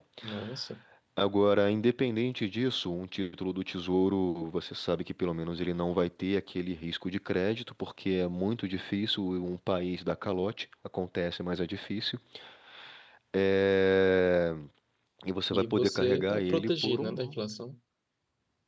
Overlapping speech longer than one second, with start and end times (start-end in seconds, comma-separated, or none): 15.5-17.3